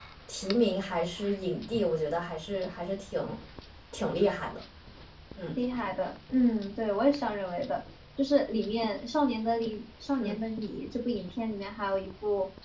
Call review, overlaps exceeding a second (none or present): none